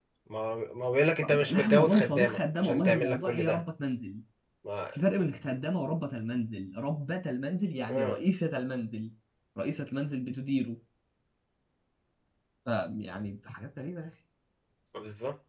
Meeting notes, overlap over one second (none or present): present